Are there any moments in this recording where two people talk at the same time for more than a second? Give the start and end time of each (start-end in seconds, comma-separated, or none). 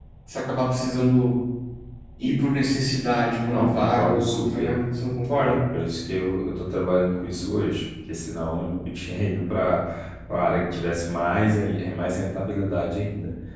3.5-4.8